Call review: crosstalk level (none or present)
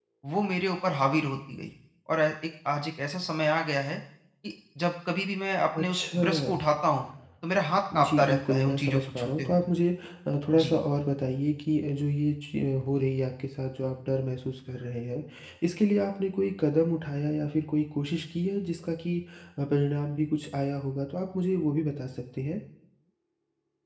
present